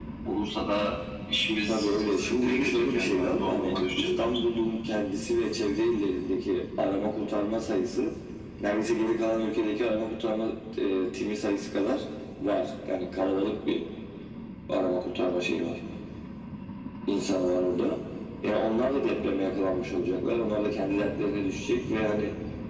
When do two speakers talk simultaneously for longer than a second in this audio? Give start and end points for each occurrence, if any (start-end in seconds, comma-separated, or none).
1.7-4.4